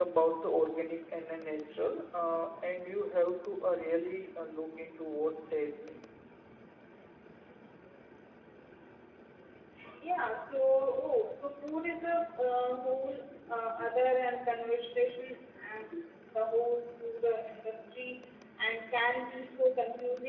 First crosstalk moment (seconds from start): none

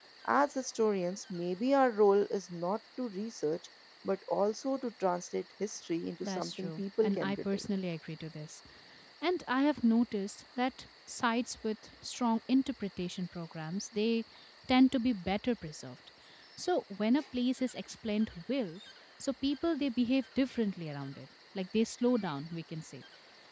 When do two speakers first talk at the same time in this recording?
6.2 s

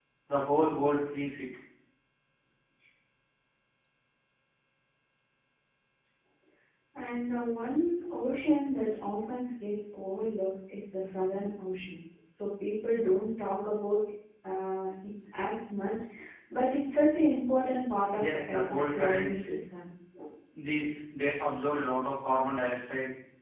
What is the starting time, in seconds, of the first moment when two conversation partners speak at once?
18.1 s

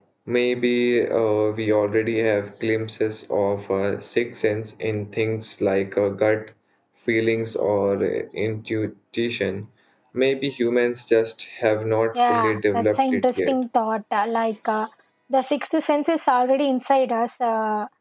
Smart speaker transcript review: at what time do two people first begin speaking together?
12.2 s

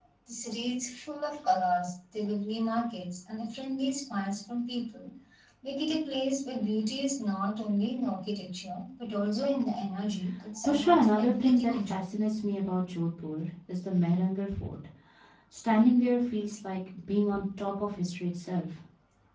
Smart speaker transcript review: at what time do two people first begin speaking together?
10.6 s

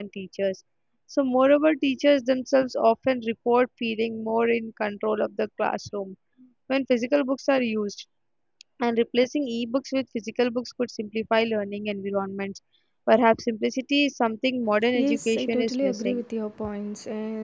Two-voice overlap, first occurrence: 14.9 s

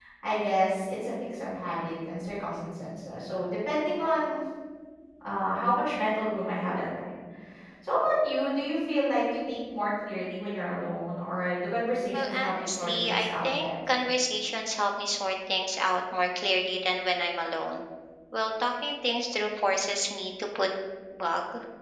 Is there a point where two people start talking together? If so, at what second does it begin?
12.1 s

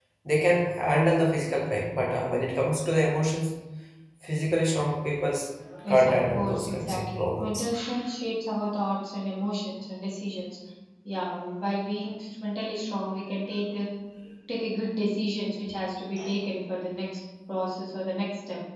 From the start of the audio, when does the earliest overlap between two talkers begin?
5.9 s

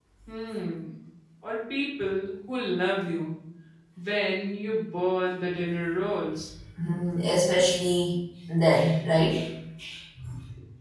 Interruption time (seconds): none

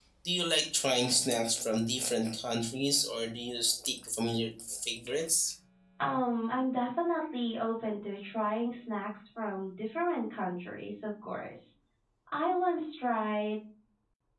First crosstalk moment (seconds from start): none

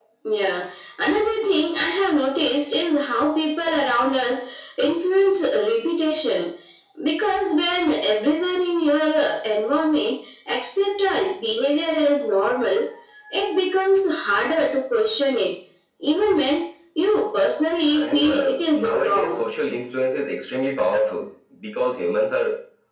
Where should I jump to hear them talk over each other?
17.9 s

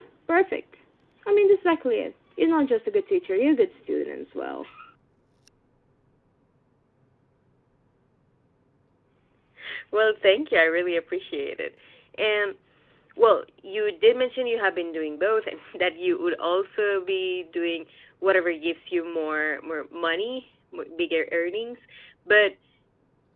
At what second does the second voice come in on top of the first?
none

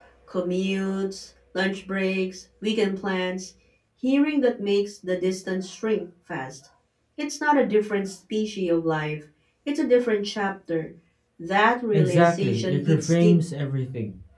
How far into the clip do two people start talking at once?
11.9 s

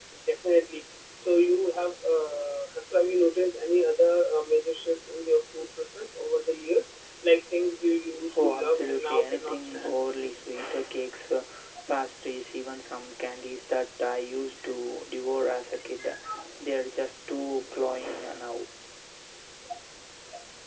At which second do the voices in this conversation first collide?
8.3 s

